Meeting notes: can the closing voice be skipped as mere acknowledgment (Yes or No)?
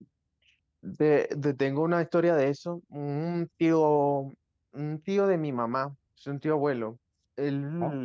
Yes